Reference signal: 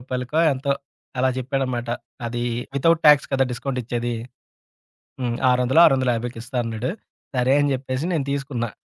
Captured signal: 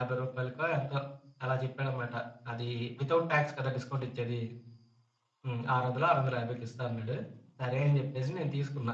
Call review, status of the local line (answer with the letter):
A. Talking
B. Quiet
B